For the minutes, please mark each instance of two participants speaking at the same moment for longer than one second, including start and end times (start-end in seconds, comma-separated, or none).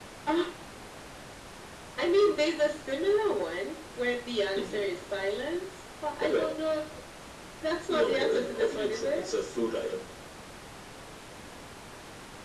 7.9-9.3